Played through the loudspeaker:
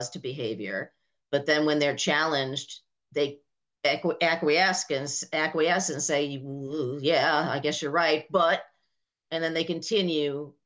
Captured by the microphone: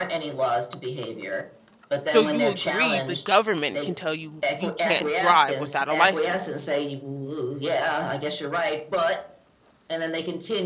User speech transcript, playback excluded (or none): So you agree the government can tell you you can't drive without a license.